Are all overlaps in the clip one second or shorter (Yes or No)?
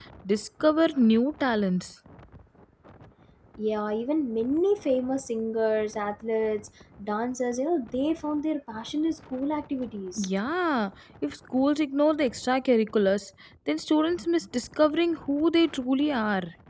Yes